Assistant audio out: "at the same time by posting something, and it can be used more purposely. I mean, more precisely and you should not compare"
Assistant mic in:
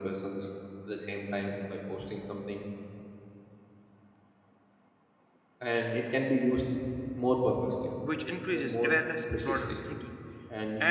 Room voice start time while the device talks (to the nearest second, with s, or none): 8 s